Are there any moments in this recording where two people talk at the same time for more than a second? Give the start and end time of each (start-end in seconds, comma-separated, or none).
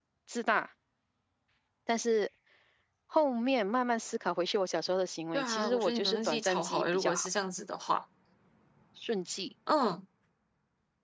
5.3-7.3